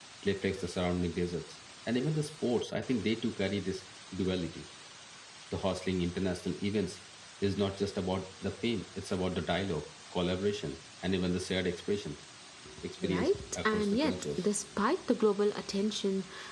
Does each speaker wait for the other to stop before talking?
No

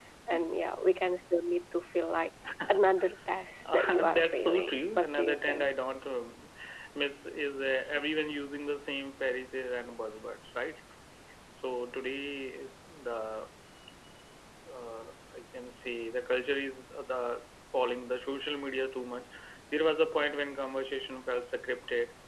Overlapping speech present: Yes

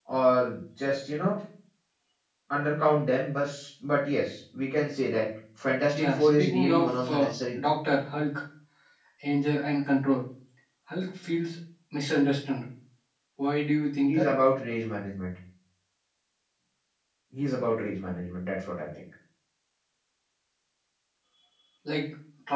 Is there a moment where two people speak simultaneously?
Yes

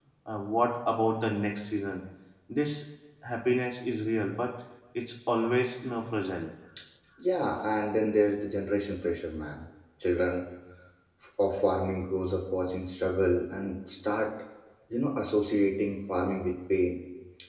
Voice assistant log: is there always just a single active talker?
Yes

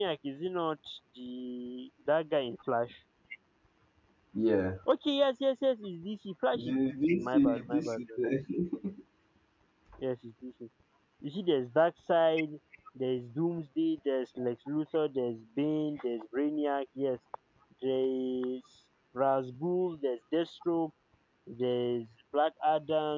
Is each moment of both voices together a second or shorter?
No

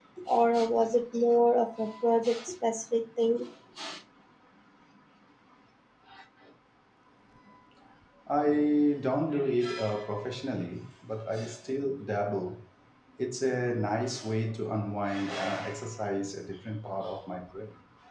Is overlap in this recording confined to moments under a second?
Yes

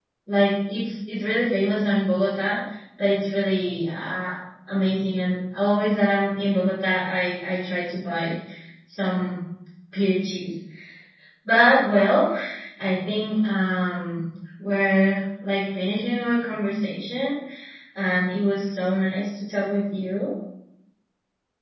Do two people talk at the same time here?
No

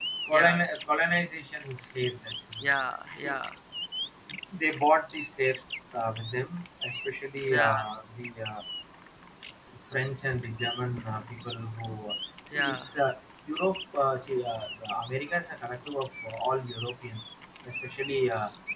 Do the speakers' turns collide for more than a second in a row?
No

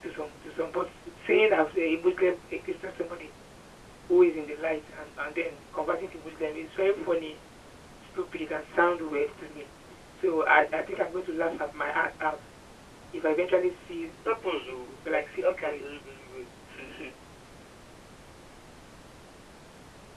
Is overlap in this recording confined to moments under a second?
No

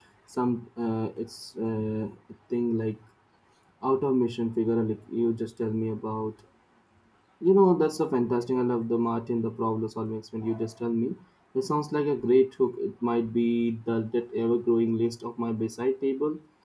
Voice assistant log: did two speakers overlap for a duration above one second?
No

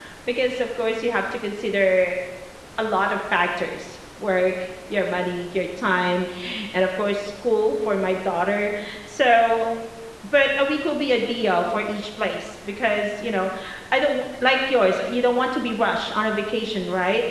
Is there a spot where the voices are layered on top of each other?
No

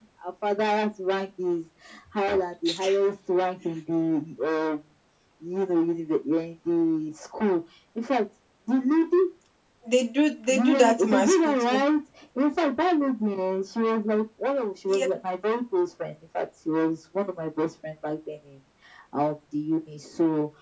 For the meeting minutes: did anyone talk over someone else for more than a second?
Yes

